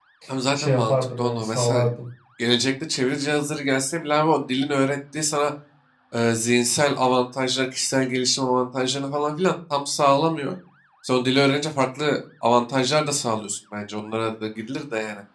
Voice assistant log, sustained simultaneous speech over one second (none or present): present